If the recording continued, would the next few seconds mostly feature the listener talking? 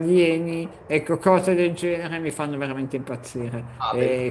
Yes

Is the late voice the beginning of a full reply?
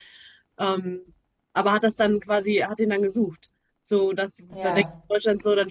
No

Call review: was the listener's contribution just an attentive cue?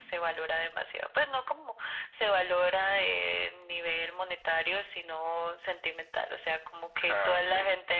Yes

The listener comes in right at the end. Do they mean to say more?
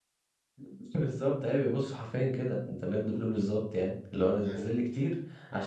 No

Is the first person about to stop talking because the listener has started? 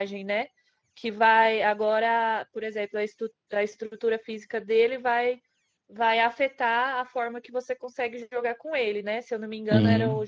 No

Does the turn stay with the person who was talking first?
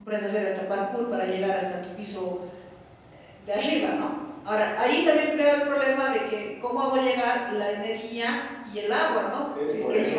No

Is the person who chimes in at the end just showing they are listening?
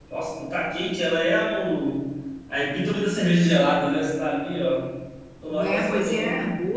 No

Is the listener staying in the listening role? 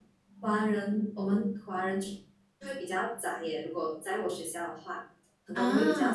Yes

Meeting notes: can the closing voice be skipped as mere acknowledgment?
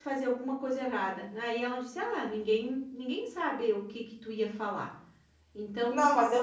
No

